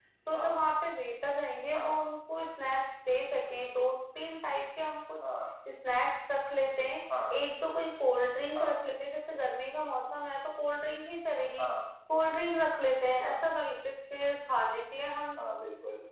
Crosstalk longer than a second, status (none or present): none